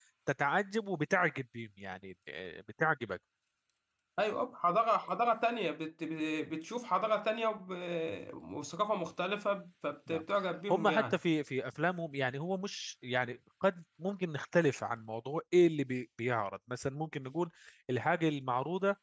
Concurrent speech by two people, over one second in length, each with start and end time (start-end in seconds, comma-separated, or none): none